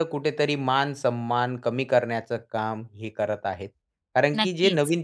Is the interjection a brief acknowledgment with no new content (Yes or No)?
Yes